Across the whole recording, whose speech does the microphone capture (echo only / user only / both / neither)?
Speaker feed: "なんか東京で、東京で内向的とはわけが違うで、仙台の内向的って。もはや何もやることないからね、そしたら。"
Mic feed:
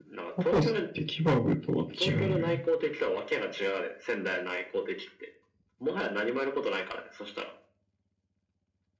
both